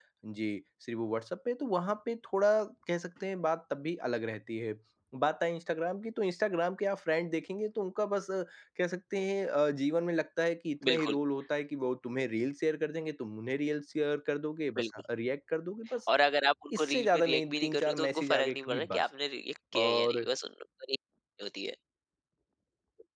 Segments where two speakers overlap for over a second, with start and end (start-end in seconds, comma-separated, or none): 16.8-19.0